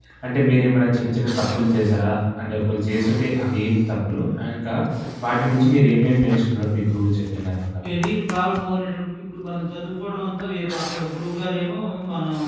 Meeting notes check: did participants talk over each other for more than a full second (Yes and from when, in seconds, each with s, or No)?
No